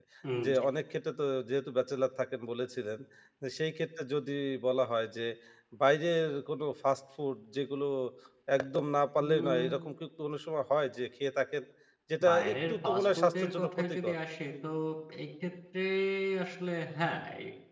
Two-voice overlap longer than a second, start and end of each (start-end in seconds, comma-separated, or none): 12.3-14.2